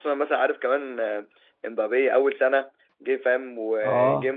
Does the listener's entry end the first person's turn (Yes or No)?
No